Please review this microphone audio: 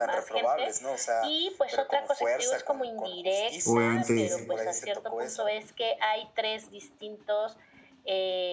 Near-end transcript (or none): obviamente